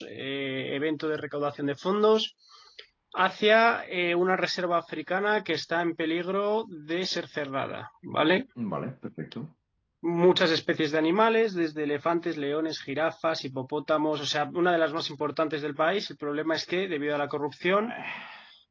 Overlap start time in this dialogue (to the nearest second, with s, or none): none